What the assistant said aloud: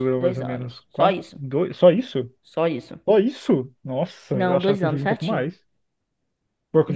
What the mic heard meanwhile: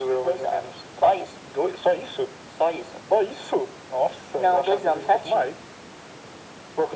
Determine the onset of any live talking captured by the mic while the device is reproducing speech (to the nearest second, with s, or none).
none